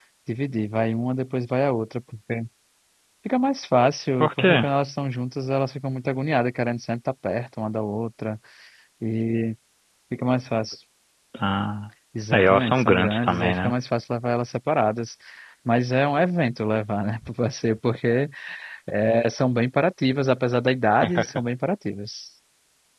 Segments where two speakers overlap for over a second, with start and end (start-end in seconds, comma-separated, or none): 12.3-13.7